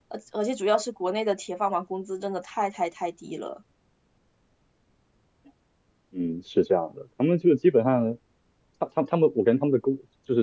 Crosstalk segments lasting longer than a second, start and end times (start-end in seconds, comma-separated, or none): none